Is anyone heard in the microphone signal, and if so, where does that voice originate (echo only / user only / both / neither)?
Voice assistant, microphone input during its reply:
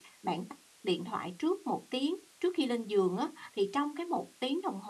user only